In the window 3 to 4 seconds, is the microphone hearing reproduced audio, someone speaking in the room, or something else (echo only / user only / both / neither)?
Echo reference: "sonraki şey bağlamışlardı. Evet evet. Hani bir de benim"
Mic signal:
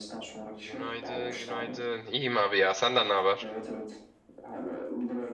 both